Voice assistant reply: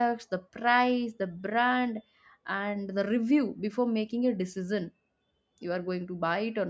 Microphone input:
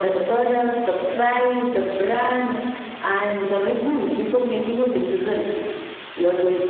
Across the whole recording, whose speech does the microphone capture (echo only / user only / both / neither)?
echo only